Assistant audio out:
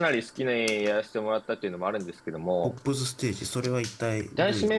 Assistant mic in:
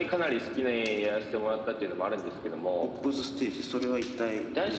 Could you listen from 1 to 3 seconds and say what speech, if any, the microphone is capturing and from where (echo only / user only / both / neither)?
echo only